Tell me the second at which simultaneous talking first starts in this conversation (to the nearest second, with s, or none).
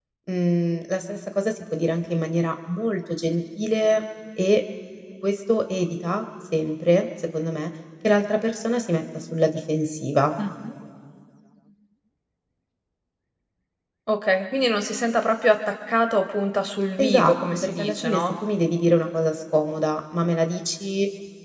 17 s